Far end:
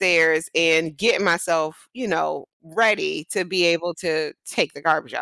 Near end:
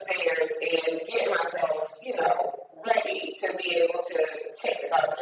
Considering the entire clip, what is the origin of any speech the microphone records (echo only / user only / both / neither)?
echo only